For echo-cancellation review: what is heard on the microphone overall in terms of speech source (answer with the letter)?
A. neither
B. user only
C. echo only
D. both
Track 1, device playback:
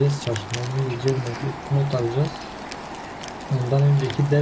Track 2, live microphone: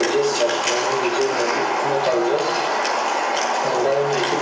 C